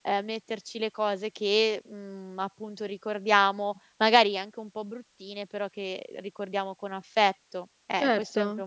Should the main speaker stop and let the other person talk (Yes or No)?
Yes